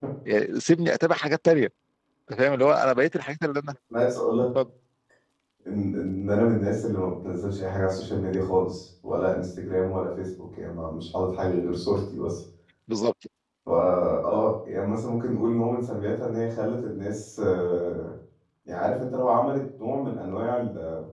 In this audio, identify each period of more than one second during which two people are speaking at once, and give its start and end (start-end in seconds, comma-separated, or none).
none